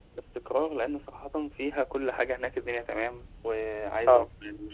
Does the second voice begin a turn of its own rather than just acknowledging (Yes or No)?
No